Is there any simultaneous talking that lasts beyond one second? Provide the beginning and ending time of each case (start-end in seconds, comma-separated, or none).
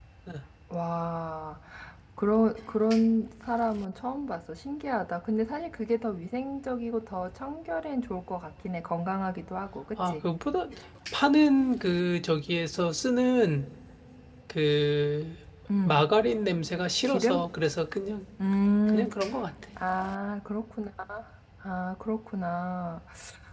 none